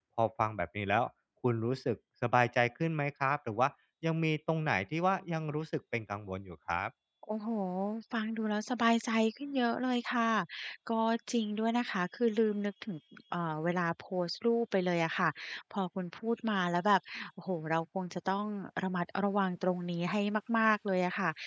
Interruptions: none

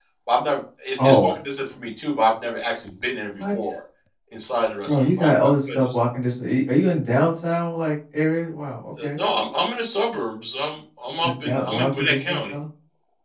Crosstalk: present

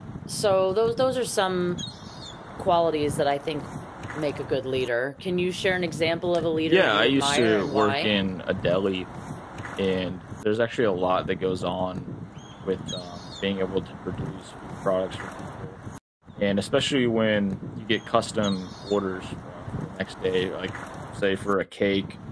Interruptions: present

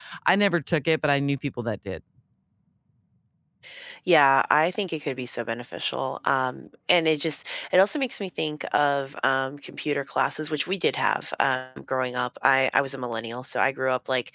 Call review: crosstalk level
none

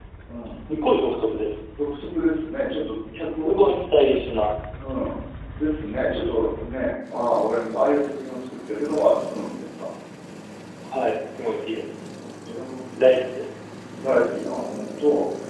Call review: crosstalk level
none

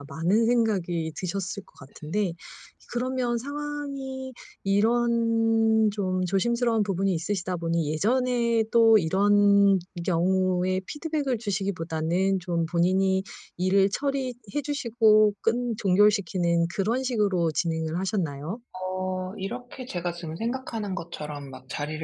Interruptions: none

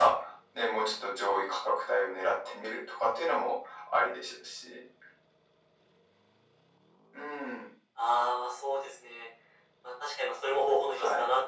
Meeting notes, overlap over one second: none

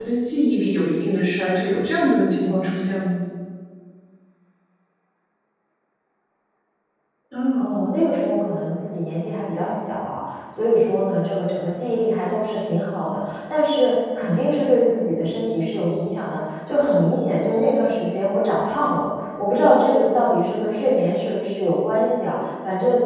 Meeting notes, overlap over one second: none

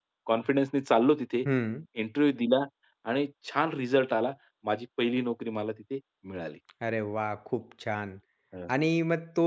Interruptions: none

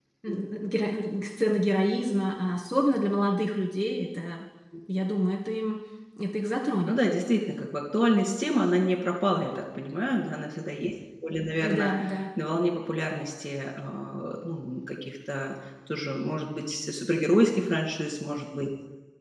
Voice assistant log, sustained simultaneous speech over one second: none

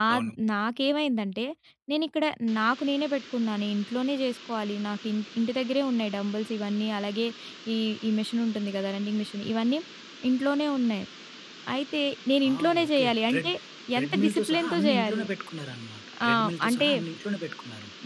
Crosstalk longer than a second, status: present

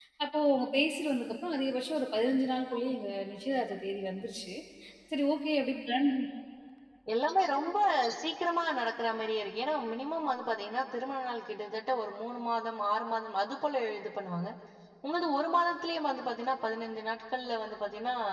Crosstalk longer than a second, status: none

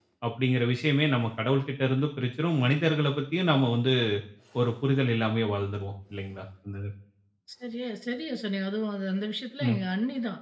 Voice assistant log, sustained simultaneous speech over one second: none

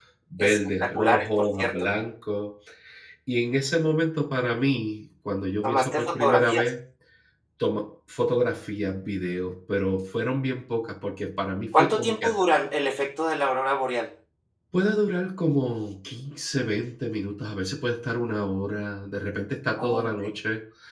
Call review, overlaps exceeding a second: present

